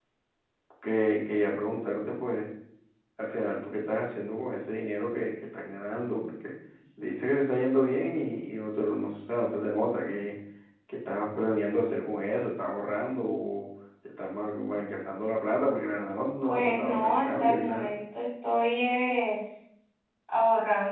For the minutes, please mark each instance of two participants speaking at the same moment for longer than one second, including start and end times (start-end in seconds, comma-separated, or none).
16.5-17.9